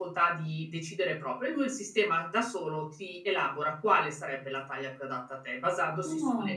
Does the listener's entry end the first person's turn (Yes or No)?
No